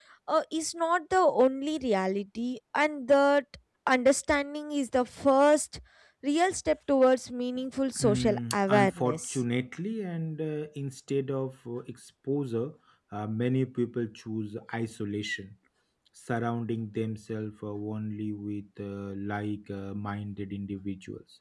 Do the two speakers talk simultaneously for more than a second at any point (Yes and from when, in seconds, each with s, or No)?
Yes, from 8.0 s